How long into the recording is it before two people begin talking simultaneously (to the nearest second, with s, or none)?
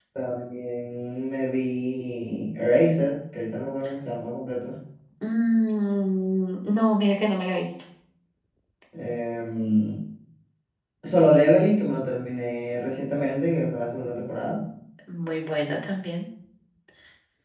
none